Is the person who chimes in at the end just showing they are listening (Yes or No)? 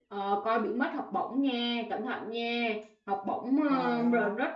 Yes